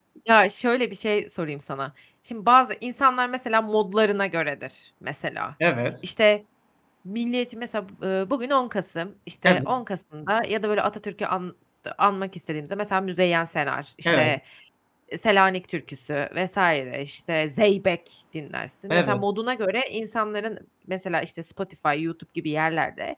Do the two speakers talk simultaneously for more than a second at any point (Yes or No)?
No